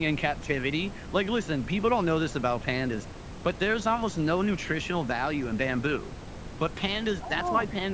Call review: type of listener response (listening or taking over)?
listening